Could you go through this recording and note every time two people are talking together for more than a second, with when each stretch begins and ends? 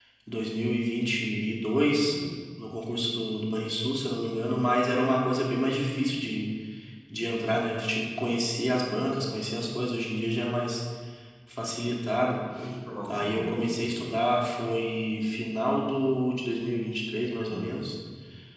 none

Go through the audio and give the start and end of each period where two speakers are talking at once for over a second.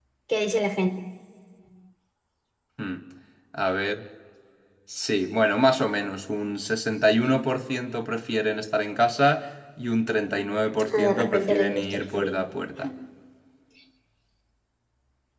10.9-12.4

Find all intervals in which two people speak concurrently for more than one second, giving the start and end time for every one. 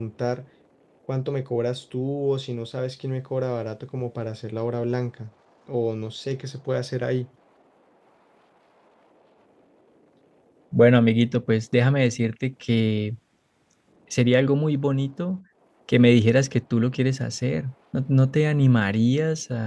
none

